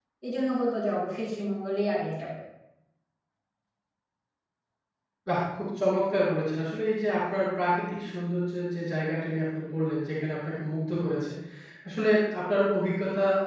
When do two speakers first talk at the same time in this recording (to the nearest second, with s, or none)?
none